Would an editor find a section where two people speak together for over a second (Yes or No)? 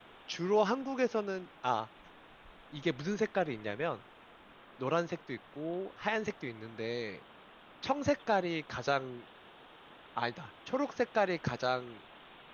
No